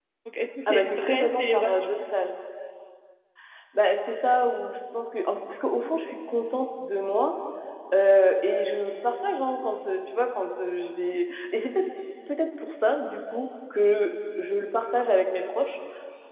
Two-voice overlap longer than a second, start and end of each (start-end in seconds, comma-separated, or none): 0.7-1.9